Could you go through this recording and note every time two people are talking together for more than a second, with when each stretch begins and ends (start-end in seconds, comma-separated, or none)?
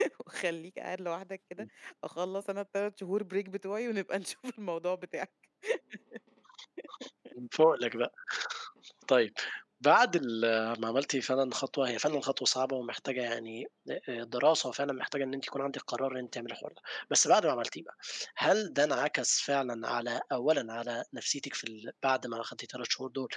none